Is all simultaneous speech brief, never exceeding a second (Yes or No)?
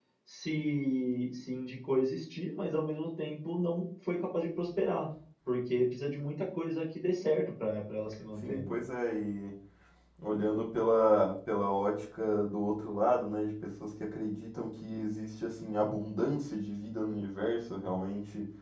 Yes